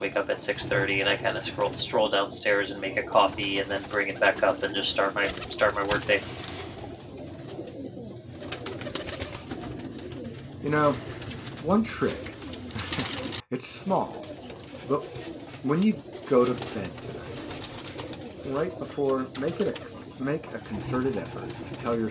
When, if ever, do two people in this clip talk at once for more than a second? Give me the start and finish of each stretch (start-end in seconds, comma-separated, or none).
none